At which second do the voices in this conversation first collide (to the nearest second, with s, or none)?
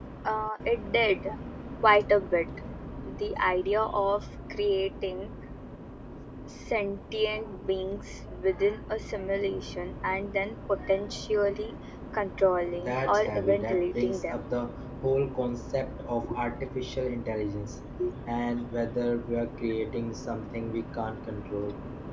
13 s